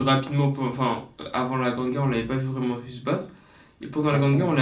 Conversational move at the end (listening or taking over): listening